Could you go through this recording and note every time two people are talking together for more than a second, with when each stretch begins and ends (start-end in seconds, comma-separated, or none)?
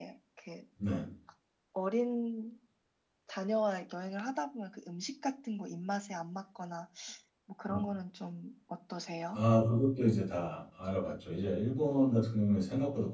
none